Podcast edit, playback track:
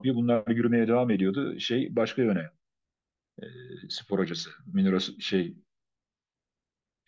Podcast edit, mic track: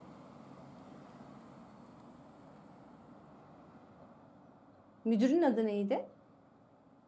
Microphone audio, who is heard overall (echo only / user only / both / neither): user only